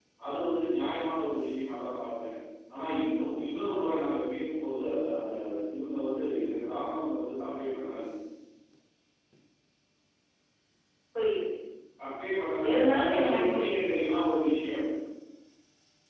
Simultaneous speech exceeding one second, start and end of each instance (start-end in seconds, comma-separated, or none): 12.7-14.0